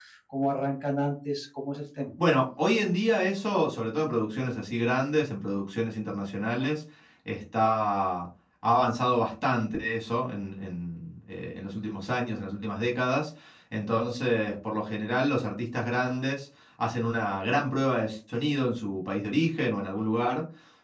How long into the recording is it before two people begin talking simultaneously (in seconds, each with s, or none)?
none